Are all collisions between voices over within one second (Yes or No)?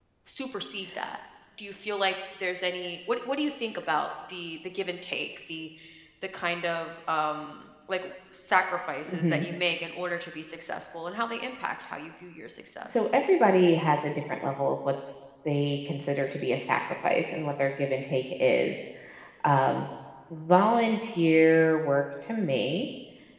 Yes